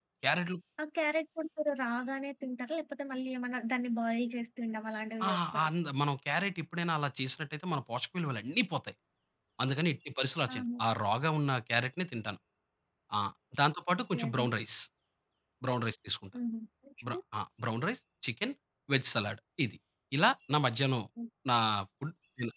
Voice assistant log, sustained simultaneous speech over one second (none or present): none